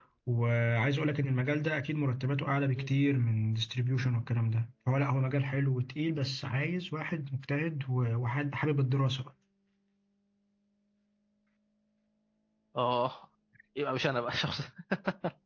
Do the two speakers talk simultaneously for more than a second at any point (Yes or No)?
No